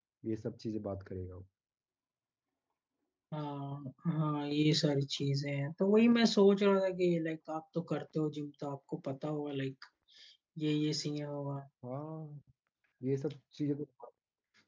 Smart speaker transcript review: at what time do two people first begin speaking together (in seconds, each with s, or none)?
none